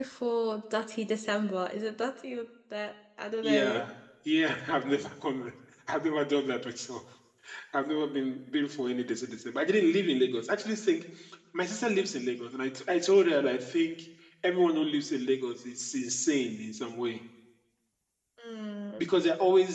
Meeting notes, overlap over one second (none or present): none